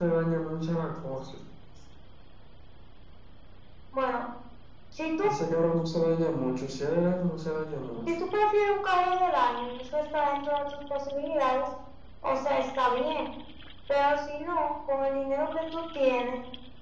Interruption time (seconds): none

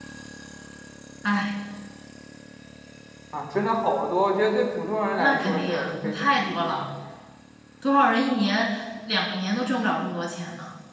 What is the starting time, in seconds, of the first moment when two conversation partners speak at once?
5.2 s

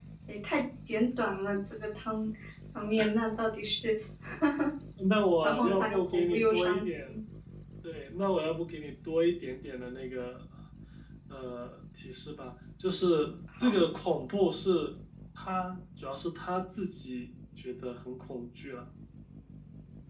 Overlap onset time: 5.4 s

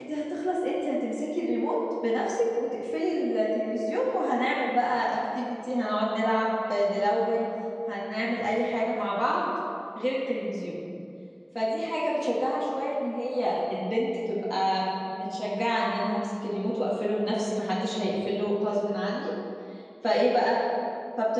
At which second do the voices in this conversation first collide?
none

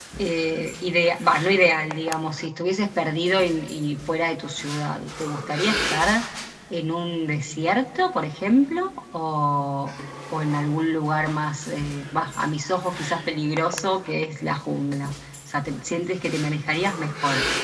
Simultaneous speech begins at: none

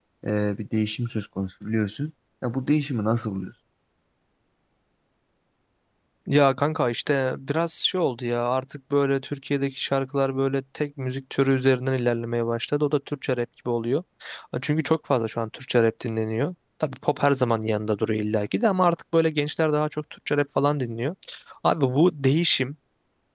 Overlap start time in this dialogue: none

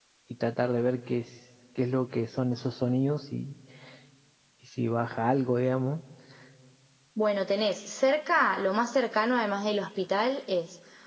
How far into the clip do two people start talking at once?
none

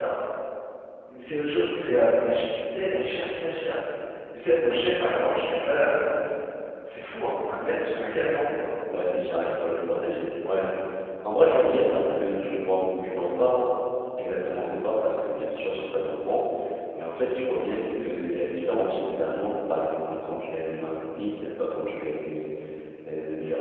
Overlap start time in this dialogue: none

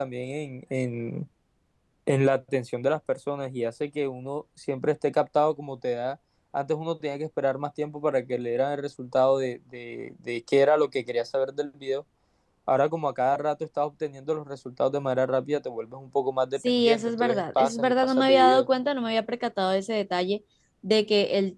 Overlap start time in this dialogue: 16.6 s

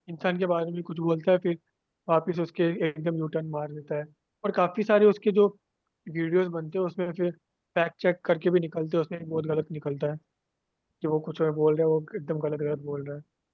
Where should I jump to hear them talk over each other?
none

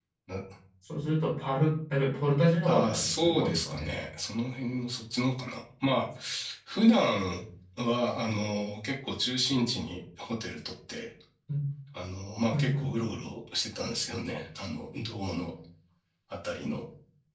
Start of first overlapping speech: 2.6 s

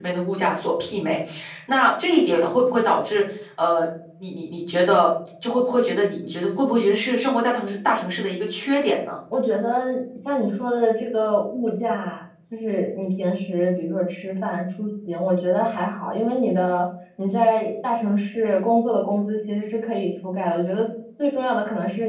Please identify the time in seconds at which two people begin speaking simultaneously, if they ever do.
none

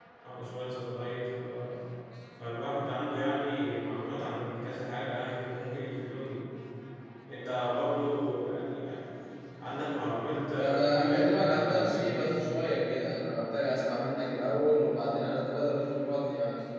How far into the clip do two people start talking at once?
10.6 s

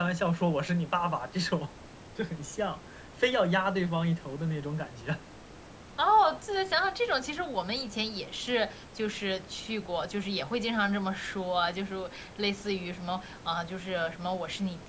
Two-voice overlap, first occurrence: none

